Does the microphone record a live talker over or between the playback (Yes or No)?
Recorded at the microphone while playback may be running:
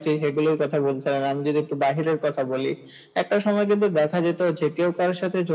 No